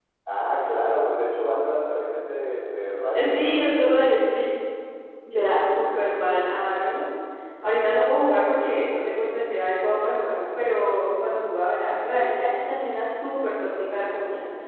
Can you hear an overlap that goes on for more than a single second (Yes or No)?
No